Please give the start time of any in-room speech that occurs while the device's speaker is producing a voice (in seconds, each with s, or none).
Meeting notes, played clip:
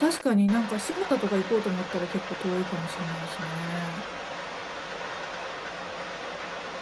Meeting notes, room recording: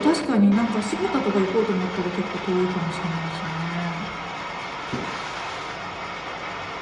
none